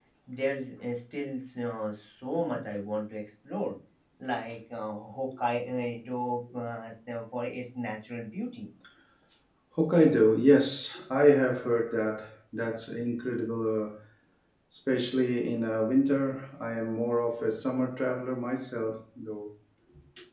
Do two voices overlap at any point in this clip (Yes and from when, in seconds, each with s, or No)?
No